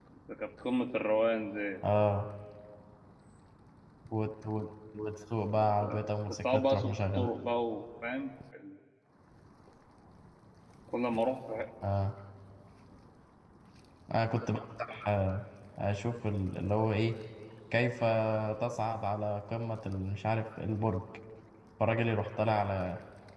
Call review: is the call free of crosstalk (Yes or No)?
No